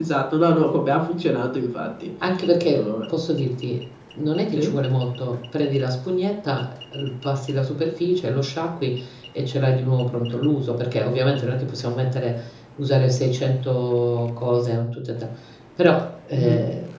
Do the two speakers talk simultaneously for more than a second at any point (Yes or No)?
No